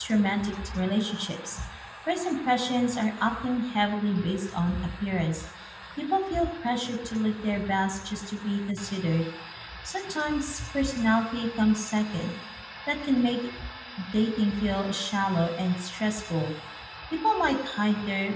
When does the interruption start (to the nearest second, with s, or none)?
none